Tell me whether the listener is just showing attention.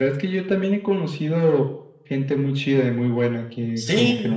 No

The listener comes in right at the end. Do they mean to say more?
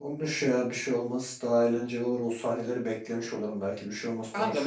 Yes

